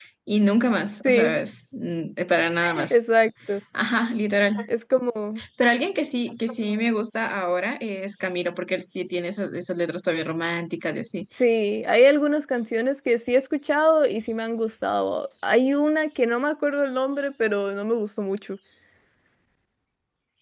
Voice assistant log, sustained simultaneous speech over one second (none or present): none